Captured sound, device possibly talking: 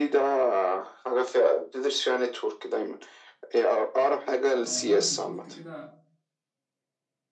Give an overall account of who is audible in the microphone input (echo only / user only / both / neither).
both